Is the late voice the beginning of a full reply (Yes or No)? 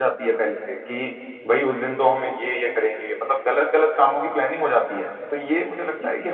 No